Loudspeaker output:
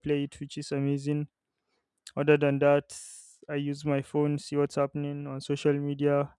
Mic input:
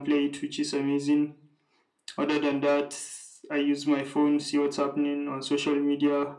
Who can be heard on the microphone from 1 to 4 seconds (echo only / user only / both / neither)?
echo only